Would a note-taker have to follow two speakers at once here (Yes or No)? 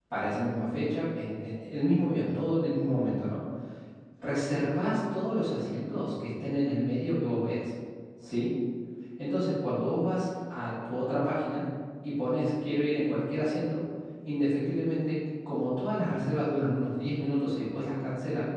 No